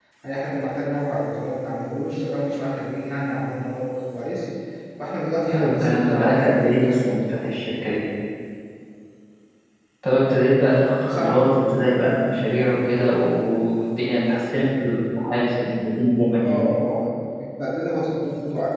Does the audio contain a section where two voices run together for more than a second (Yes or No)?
Yes